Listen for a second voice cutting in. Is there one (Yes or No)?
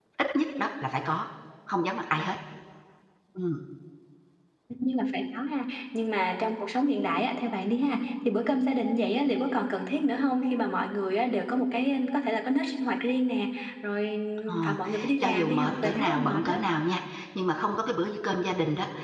Yes